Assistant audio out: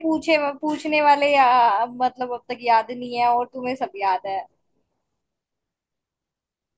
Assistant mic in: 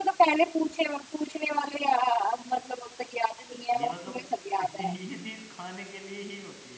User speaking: Yes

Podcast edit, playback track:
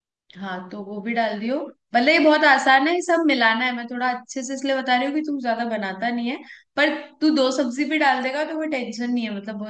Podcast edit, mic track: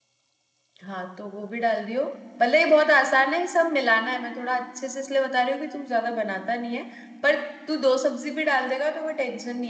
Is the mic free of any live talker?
Yes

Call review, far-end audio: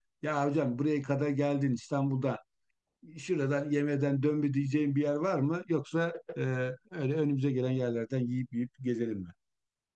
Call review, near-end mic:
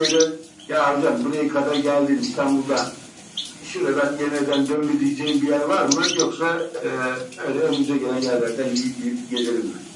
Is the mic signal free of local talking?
Yes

